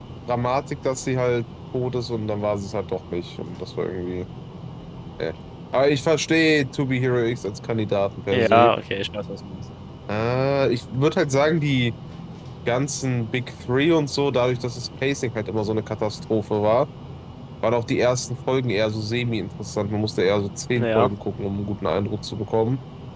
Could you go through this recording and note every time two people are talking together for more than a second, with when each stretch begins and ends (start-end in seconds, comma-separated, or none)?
none